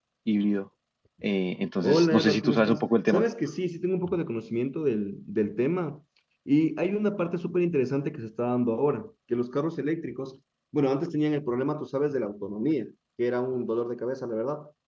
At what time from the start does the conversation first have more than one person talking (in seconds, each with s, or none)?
1.8 s